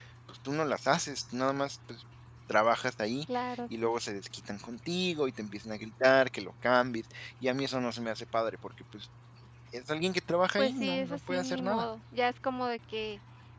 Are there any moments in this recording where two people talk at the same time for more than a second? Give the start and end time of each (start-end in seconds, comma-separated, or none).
10.6-11.8